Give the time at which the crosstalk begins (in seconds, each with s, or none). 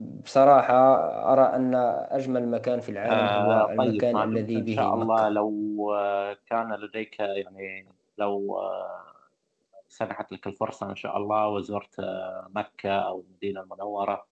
3.0 s